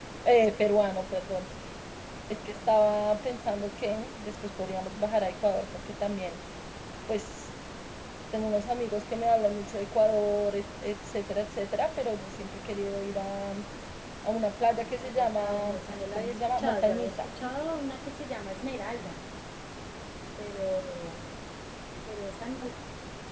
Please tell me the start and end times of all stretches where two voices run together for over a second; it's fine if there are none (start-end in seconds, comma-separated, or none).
14.9-17.3